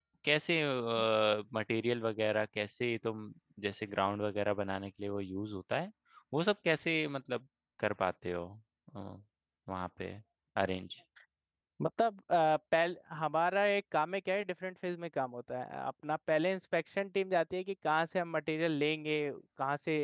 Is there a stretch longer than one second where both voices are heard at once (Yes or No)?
No